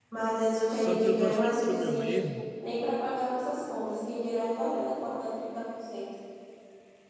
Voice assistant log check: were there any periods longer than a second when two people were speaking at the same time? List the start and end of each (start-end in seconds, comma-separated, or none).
0.7-2.1